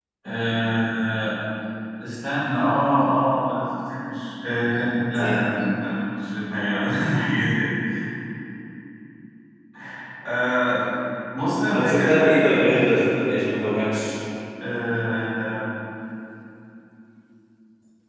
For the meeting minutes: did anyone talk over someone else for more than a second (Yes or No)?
Yes